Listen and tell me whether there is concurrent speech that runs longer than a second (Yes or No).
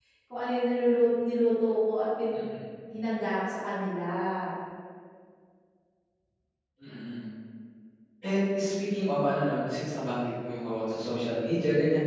No